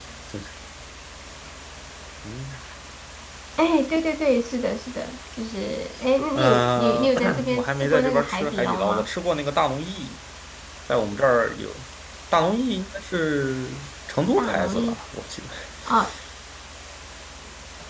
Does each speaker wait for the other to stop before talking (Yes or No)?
No